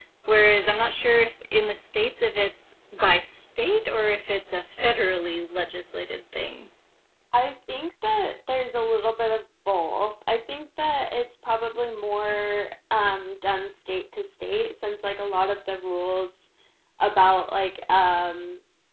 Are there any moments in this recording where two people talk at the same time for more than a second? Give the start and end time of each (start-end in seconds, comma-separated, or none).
none